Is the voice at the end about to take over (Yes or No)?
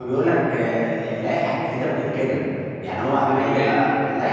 No